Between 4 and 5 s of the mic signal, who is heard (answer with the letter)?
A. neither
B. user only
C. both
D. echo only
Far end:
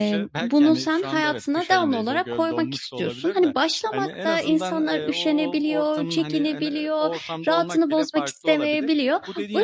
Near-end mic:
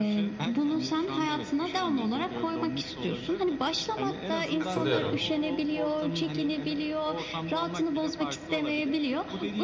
C